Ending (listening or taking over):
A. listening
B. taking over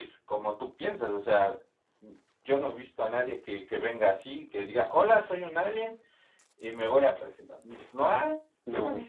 B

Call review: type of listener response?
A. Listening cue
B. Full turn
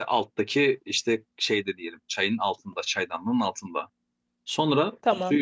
A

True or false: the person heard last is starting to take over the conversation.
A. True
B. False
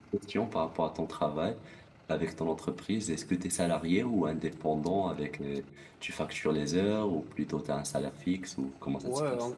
A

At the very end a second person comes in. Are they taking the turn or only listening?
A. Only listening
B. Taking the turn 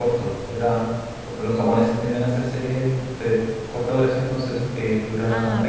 B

